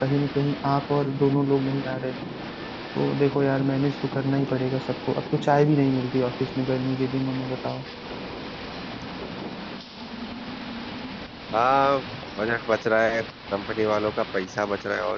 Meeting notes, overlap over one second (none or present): none